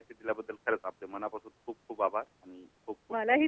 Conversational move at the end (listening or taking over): taking over